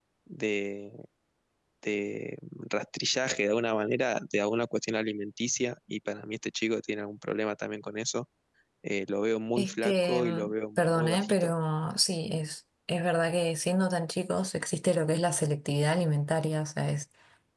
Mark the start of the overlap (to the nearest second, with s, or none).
10 s